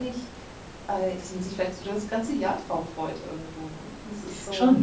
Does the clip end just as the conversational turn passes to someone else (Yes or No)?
Yes